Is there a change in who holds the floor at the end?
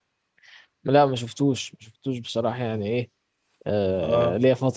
No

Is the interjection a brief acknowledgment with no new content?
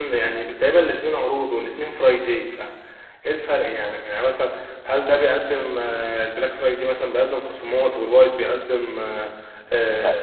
Yes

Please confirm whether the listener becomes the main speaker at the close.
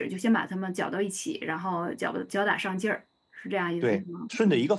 Yes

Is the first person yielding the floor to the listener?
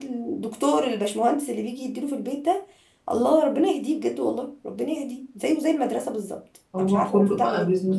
Yes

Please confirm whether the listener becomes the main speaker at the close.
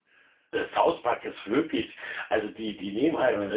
No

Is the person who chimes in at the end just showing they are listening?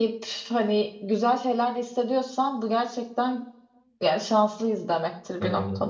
No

